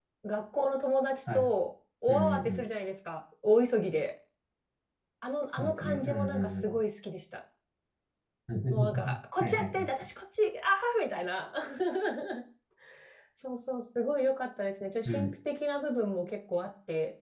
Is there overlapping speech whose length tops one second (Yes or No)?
Yes